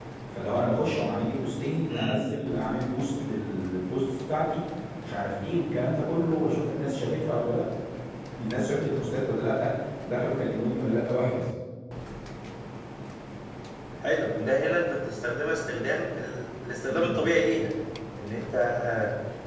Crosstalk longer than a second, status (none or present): none